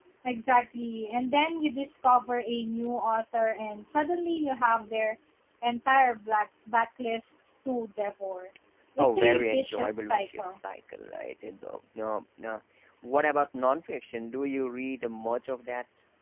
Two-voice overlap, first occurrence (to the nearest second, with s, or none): 9 s